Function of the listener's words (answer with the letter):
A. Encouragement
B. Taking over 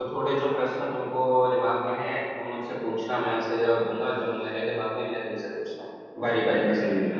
B